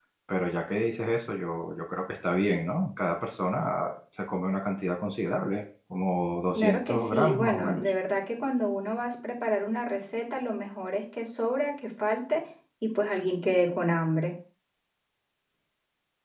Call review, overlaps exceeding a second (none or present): present